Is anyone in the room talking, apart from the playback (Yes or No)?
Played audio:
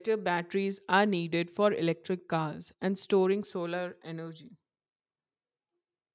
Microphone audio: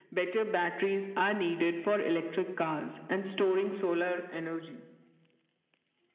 No